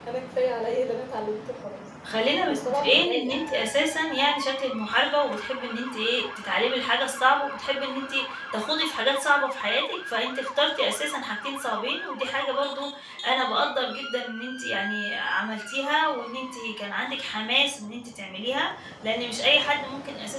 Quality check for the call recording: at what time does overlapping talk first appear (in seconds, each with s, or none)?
2.5 s